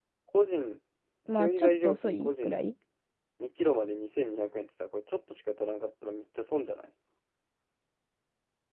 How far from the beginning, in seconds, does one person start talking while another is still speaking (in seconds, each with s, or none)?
1.3 s